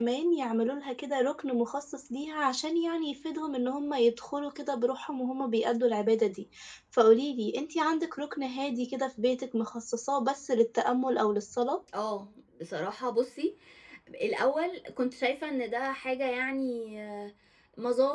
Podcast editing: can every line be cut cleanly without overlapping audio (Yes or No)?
Yes